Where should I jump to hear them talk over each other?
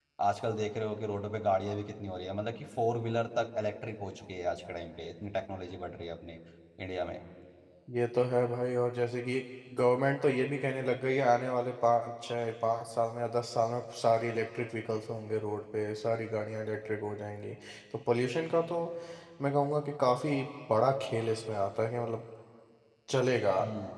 none

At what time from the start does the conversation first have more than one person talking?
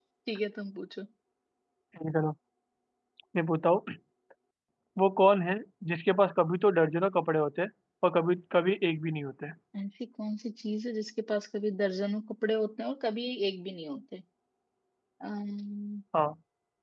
none

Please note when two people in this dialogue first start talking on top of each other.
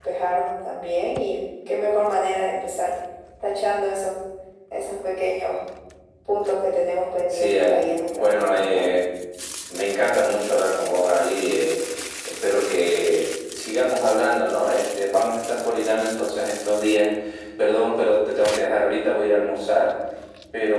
7 s

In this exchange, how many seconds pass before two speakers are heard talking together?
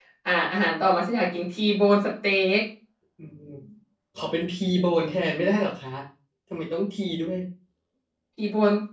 none

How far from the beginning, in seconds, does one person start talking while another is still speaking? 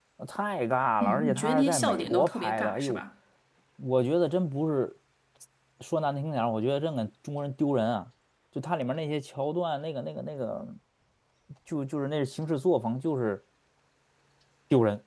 1 s

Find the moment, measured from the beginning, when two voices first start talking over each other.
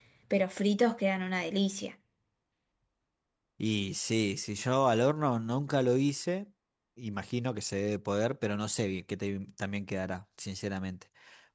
none

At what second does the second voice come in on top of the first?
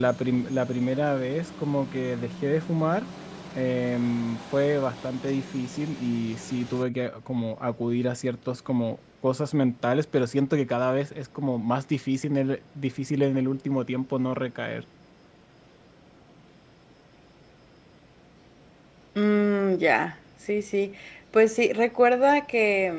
none

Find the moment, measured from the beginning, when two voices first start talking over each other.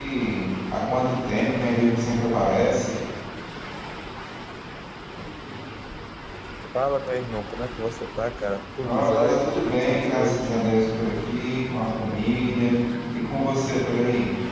9 s

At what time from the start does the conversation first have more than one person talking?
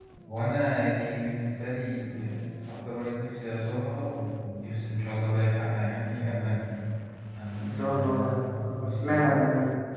8 s

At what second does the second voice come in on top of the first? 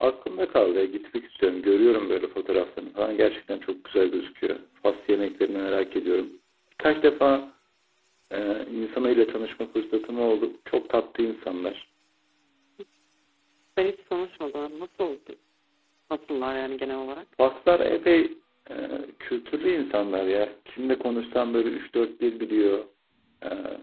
none

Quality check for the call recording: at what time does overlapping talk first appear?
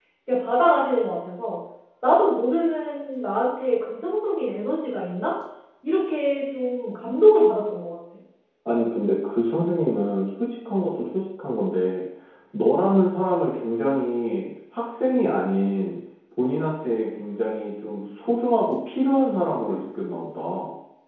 none

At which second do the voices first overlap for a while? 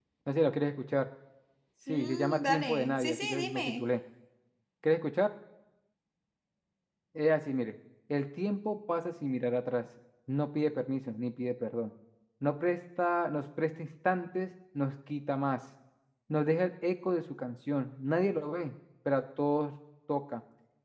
2 s

